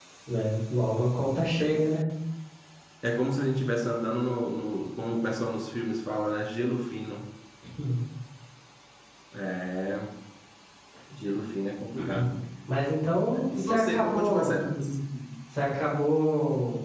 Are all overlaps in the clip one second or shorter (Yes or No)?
No